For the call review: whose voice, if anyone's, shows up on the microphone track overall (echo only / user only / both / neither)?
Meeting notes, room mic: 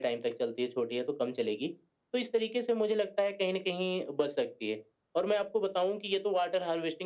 echo only